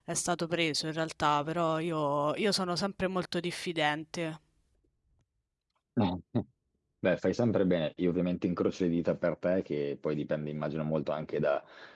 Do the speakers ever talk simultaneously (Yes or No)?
No